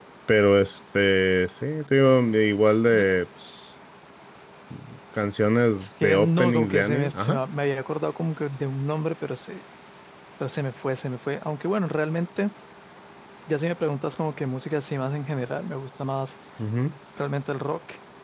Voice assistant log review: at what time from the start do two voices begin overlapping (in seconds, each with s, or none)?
5.8 s